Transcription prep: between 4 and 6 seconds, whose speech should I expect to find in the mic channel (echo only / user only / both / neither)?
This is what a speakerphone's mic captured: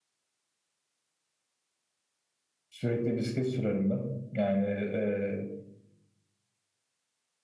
user only